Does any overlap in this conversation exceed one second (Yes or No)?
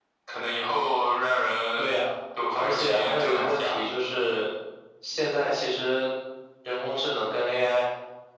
Yes